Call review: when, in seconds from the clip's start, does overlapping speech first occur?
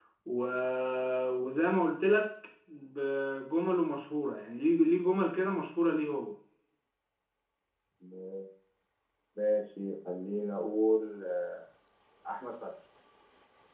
none

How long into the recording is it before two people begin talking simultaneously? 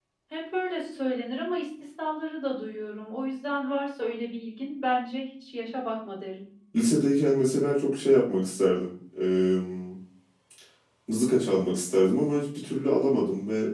none

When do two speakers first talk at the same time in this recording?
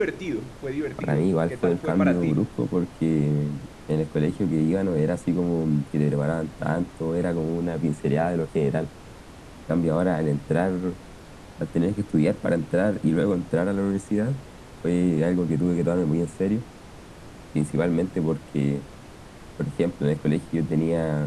1.0 s

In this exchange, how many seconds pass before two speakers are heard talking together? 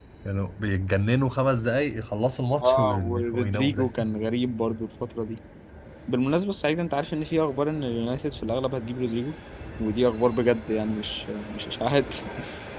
2.6 s

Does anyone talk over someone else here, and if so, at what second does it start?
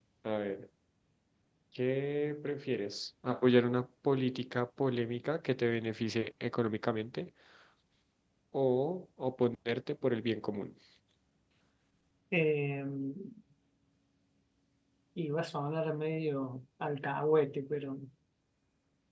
none

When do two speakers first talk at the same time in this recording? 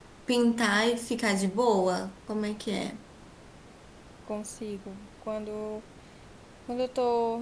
none

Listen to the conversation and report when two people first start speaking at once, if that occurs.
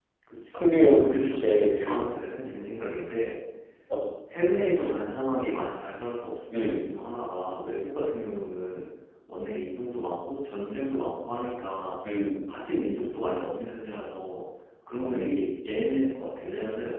0.5 s

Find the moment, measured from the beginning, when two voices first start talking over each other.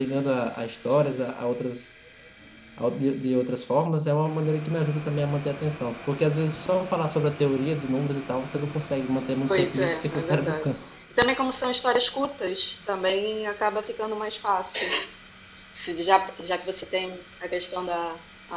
9.4 s

